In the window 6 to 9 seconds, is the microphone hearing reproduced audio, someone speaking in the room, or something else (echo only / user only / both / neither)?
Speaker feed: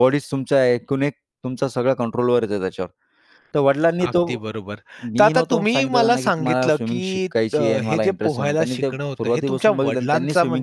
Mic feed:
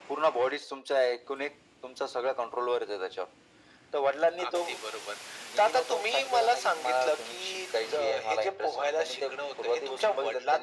echo only